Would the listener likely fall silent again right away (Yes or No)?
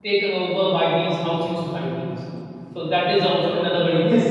No